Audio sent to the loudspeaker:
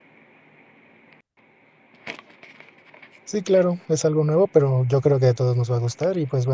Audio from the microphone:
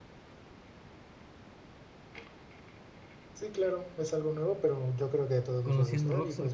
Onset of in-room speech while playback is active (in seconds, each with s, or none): 5.6 s